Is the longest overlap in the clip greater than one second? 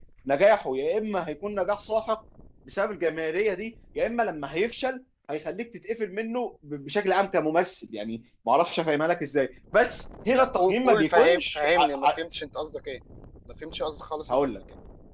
Yes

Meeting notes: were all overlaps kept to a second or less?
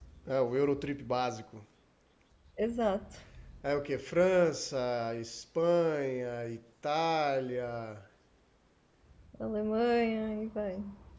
Yes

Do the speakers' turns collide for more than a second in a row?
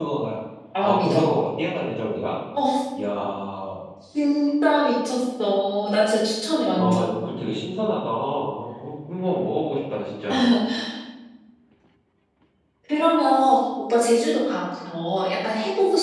No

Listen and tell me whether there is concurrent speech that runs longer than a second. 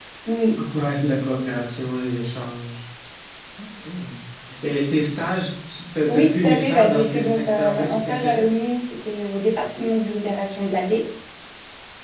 Yes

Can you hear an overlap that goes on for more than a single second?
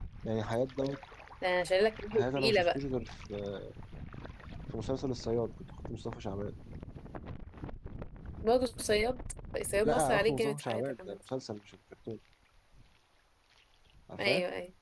Yes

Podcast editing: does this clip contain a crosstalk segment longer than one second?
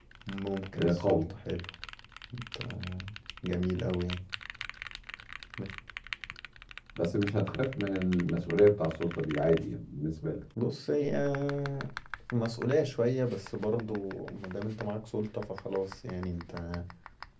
No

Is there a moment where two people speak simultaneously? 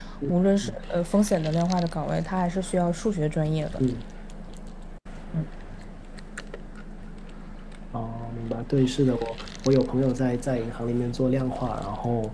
No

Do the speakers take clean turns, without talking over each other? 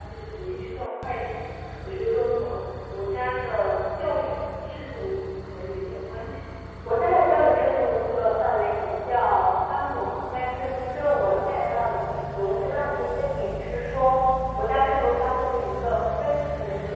Yes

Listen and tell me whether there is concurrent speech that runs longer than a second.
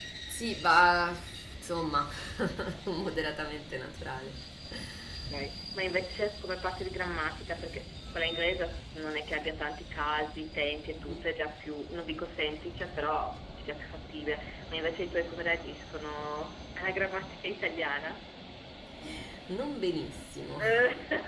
No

